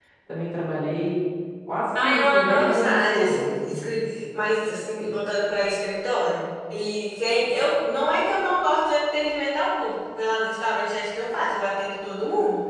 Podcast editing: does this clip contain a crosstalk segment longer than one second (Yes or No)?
Yes